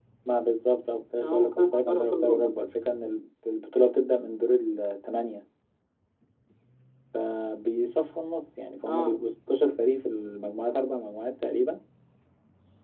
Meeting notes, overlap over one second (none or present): present